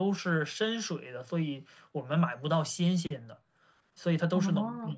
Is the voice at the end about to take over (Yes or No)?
No